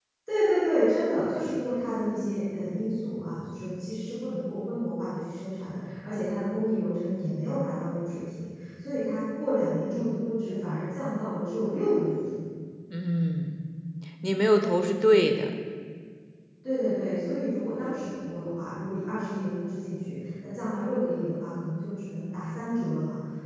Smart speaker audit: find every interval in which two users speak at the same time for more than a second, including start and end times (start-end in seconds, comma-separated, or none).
none